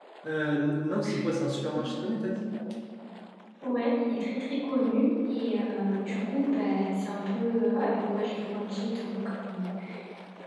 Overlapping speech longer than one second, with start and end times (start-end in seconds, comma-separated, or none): none